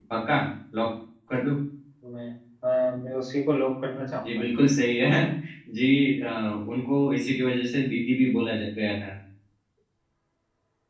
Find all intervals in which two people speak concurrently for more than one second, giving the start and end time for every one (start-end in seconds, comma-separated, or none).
none